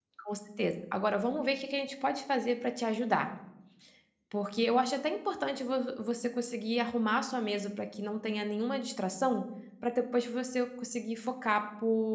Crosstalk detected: No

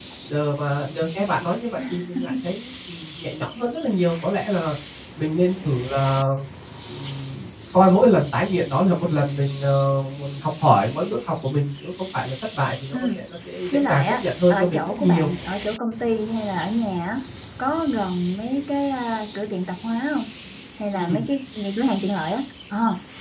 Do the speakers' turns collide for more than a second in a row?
Yes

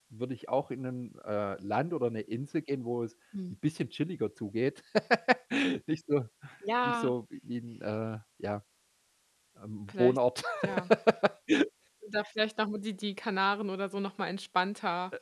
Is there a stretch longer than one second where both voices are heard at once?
No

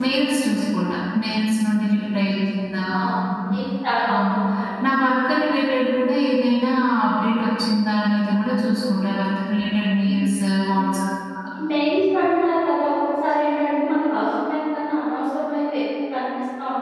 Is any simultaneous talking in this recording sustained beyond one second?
No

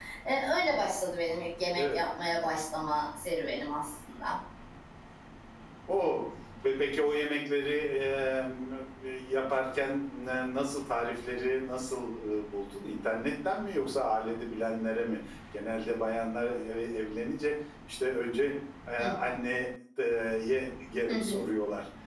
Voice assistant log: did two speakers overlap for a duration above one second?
No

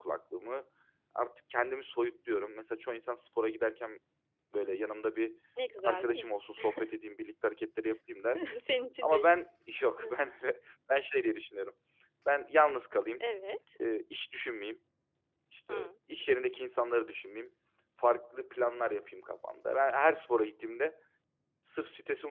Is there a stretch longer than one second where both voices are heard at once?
No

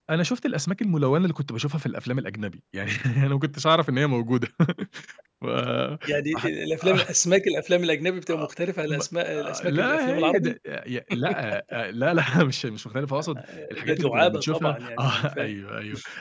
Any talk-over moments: Yes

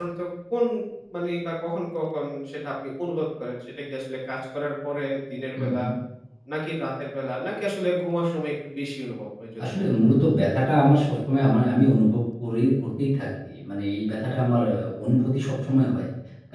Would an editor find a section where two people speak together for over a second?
No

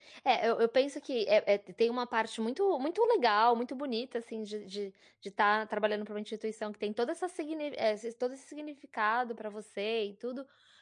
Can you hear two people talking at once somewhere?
No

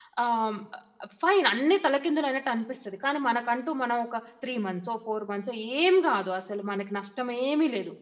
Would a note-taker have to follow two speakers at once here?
No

